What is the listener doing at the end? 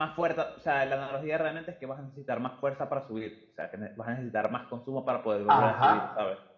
taking over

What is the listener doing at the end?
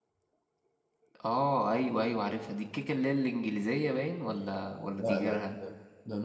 taking over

